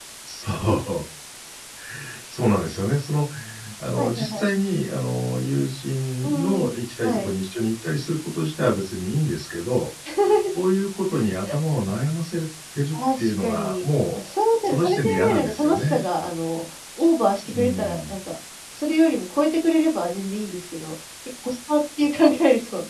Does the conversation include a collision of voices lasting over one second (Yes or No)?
Yes